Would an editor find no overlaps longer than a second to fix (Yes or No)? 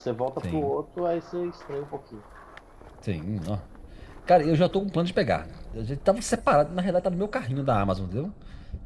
Yes